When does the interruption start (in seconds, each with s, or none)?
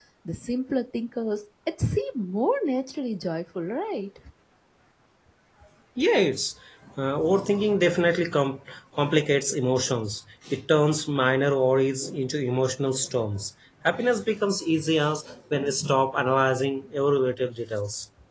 none